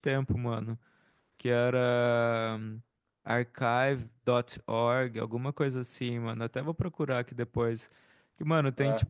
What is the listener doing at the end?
listening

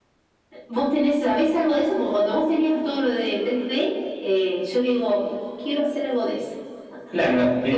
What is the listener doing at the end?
taking over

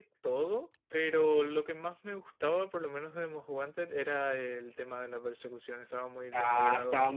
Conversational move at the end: taking over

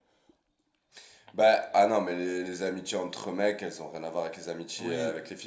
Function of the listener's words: listening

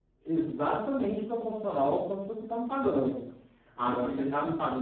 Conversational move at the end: listening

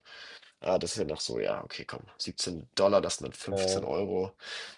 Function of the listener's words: listening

